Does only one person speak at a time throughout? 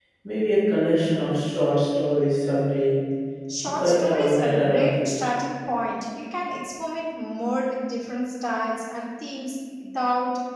No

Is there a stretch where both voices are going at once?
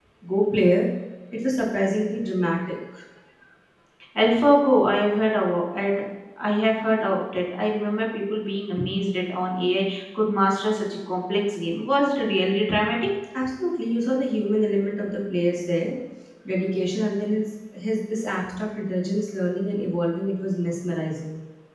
No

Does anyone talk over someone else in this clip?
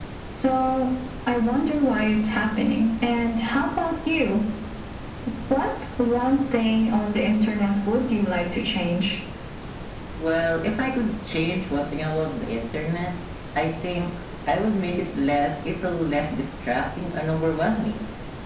No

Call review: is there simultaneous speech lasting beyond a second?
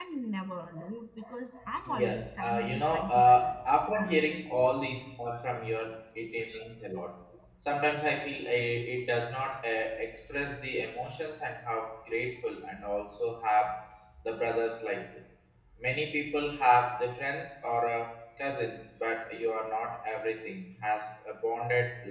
Yes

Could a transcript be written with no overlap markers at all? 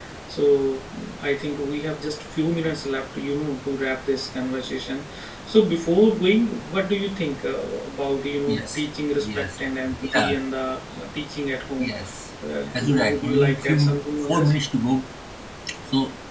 No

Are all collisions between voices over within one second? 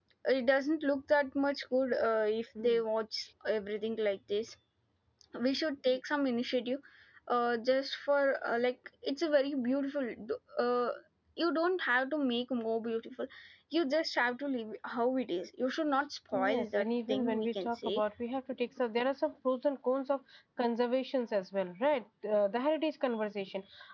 No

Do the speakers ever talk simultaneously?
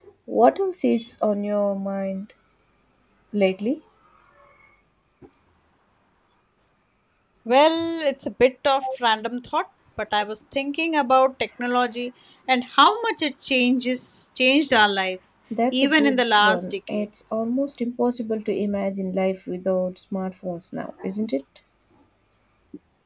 Yes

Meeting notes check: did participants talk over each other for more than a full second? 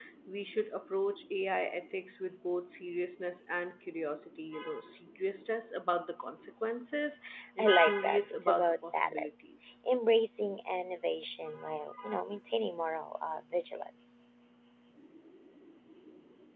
Yes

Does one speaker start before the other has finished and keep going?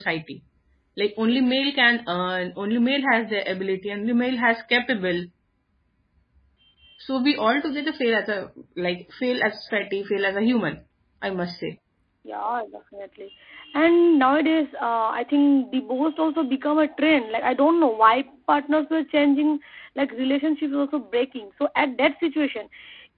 No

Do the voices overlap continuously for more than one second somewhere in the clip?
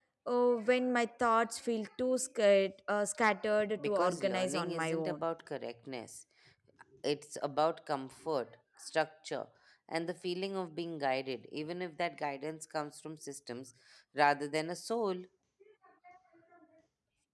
Yes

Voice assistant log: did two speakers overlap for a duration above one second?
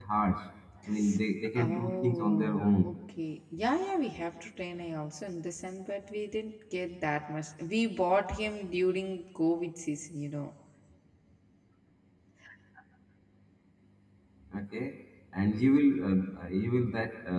Yes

